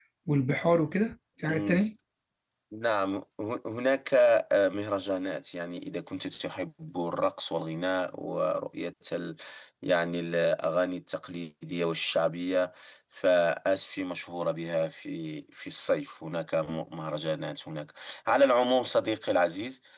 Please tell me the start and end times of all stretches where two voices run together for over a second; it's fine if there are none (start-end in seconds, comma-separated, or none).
none